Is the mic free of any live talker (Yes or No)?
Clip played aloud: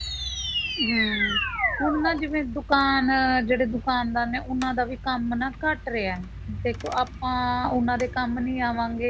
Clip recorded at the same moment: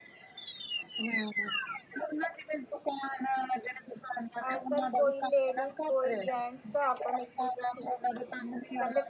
No